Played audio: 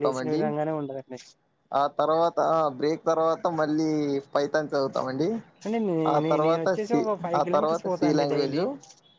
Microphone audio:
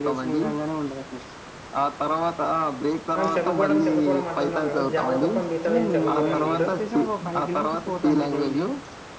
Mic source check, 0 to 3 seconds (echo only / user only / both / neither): echo only